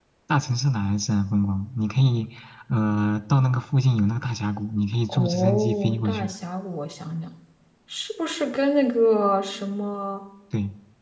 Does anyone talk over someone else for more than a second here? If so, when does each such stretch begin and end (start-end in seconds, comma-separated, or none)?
5.1-6.3